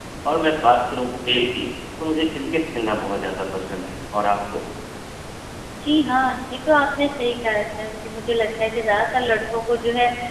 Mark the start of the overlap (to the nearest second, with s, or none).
none